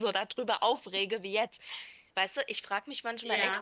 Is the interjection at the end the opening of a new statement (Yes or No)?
No